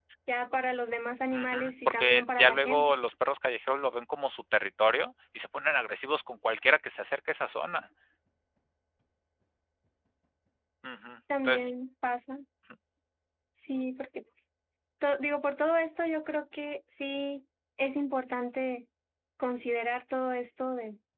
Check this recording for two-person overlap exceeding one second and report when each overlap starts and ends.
1.3-3.0

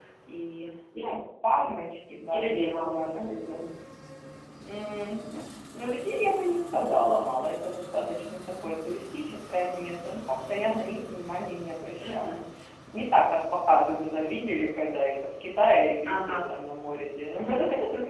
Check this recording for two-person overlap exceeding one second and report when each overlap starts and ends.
2.3-3.7

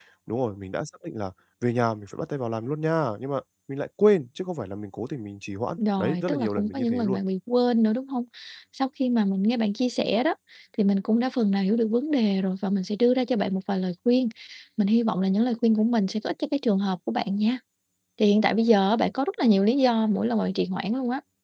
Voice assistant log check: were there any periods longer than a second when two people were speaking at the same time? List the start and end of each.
6.0-7.2

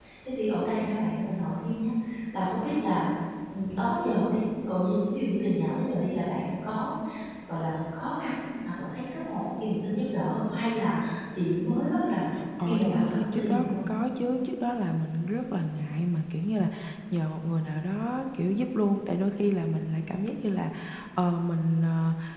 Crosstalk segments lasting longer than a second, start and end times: 12.6-13.8

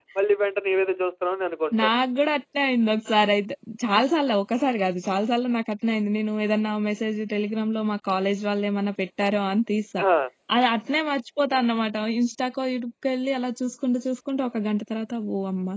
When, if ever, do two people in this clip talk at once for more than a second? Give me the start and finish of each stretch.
none

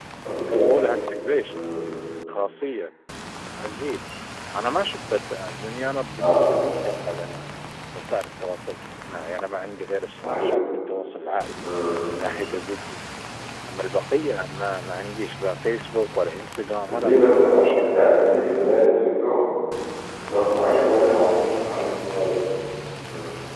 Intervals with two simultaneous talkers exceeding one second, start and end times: 16.9-18.1

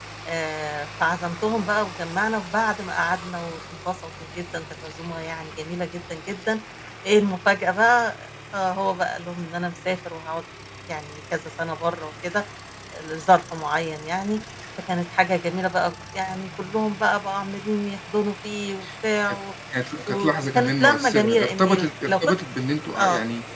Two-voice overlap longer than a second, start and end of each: 20.1-22.1

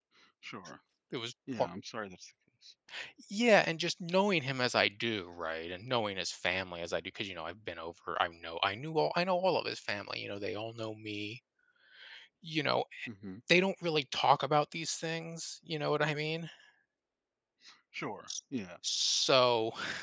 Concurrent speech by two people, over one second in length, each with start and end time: none

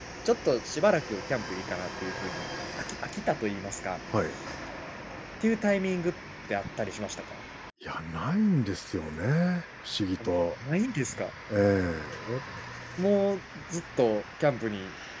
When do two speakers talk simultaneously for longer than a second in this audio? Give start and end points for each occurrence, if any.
none

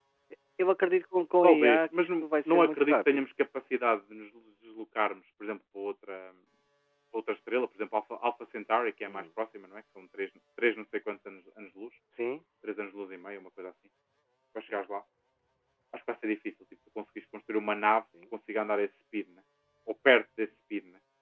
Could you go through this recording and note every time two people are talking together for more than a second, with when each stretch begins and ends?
1.4-3.2

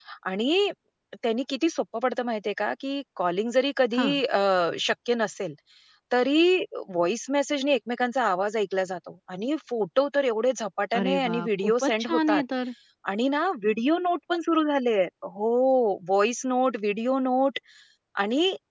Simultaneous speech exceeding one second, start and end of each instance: 11.0-12.4

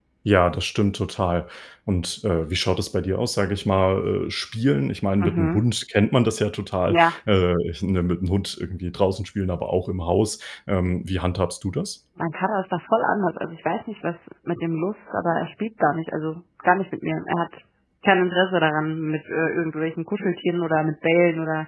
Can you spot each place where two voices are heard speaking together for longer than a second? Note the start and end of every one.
none

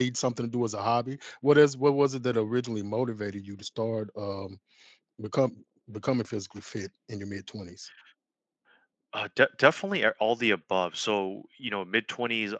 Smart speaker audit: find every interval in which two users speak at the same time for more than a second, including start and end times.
none

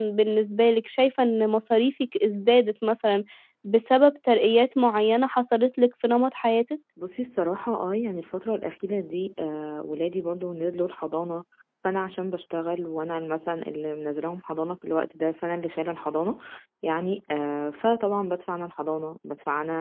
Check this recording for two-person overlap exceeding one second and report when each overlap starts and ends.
none

